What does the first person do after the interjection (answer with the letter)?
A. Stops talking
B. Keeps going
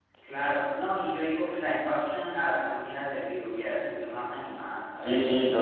A